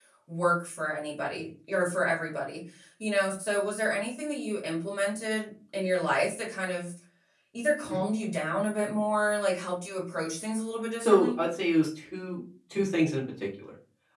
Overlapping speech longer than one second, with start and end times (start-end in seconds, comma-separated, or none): none